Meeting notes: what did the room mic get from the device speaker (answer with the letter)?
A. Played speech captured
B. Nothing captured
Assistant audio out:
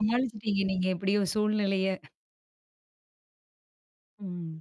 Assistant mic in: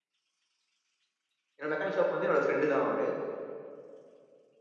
B